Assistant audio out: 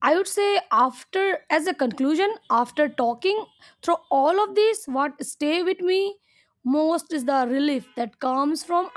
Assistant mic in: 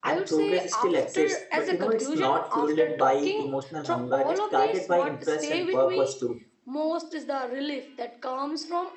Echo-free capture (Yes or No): No